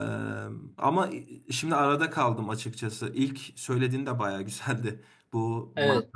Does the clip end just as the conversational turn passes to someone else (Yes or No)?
No